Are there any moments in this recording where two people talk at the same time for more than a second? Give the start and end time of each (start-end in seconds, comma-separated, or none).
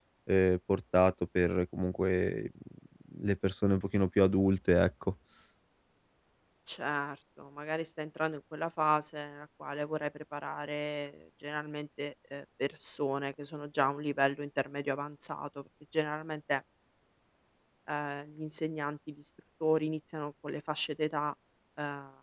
none